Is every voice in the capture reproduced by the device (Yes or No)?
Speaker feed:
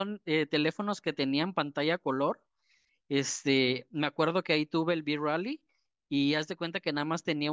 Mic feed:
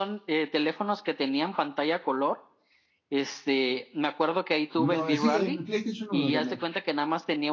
No